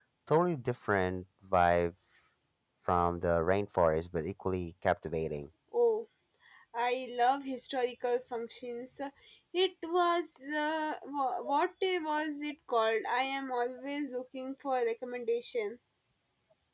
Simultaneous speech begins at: none

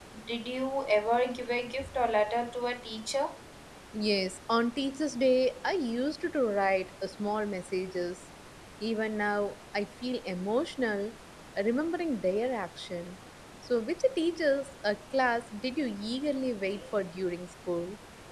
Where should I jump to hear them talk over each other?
none

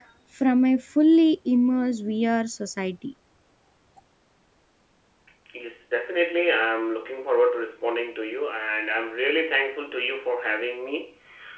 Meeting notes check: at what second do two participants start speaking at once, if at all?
none

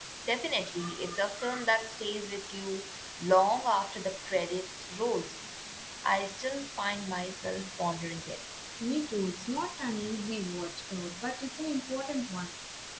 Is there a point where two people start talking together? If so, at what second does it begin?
none

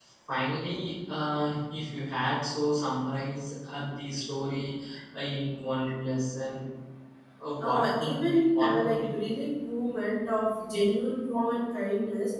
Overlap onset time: 7.6 s

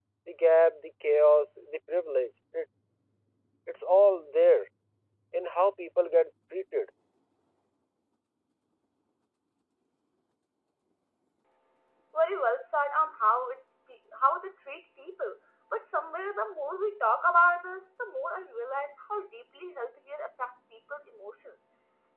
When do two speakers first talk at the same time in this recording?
none

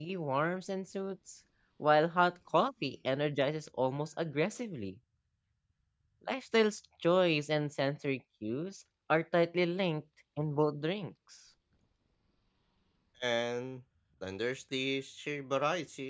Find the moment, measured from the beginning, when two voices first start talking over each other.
none

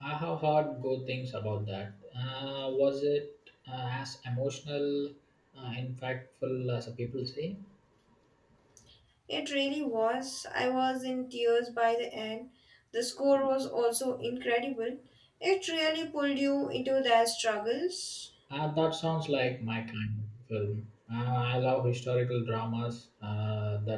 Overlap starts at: none

